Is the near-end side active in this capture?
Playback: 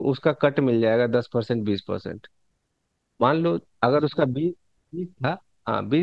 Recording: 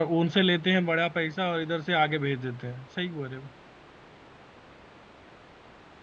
Yes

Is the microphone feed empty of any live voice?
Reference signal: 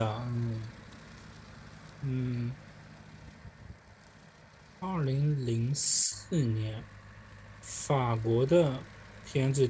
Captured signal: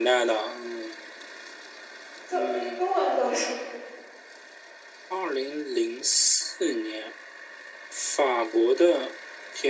No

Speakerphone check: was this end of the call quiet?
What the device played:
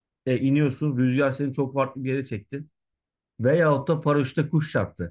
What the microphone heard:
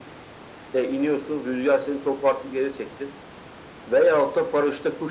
Yes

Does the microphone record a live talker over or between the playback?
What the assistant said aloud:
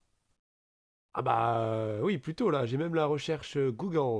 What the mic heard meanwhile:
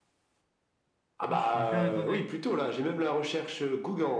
Yes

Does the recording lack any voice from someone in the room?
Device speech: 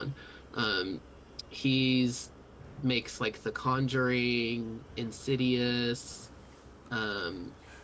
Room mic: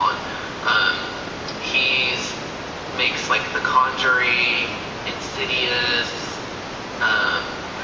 Yes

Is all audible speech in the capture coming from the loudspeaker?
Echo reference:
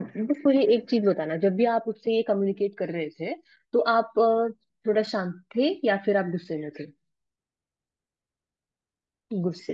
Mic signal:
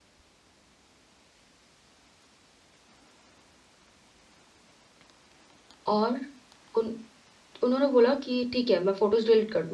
No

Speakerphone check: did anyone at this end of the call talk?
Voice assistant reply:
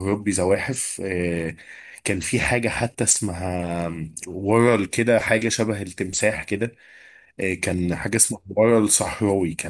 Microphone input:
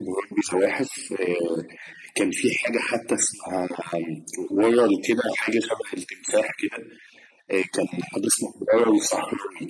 No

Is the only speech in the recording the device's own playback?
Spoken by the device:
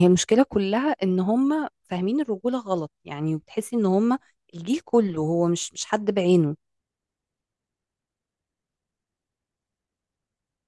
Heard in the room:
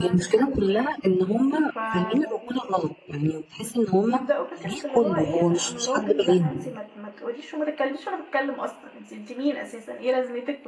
No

